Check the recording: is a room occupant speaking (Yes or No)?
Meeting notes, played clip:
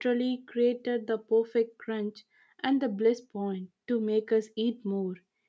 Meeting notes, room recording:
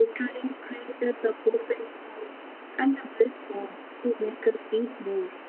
No